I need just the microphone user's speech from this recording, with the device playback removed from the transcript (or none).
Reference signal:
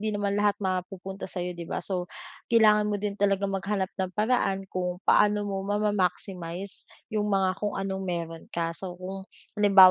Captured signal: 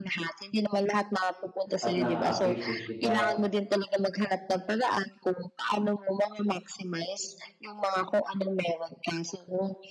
at naa-appreciate kita